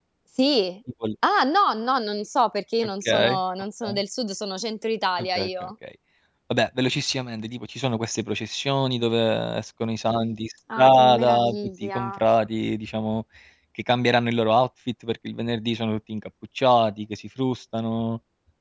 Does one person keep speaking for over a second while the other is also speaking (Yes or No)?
Yes